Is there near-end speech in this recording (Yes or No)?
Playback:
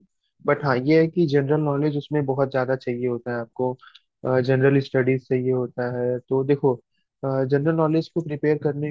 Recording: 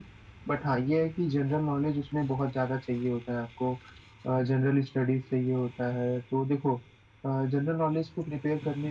No